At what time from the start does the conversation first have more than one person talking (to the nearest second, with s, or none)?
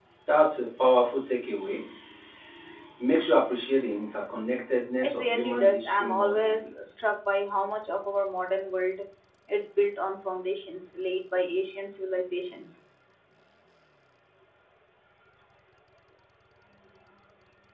5 s